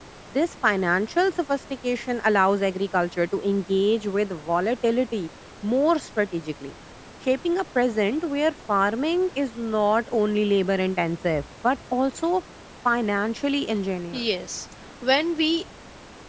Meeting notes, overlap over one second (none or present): none